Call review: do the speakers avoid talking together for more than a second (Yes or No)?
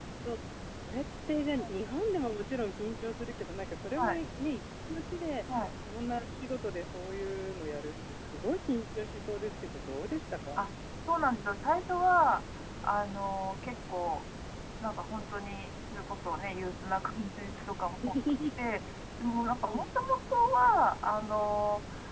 Yes